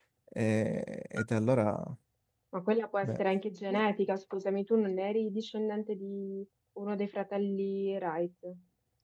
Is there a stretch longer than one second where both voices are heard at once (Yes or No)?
No